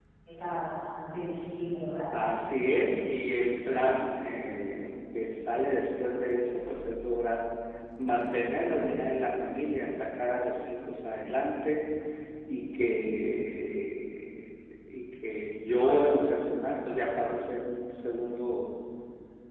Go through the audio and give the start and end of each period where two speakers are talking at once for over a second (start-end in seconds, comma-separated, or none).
none